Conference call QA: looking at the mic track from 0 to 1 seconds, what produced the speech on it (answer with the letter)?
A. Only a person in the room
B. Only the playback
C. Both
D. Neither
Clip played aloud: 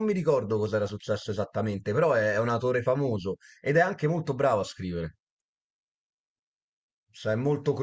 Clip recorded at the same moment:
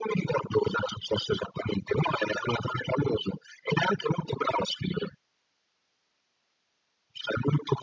B